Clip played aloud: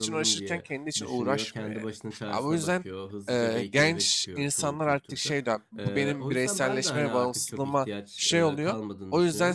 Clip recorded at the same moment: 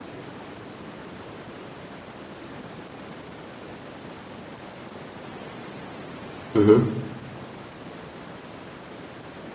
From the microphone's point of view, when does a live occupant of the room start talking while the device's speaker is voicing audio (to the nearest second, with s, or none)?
7 s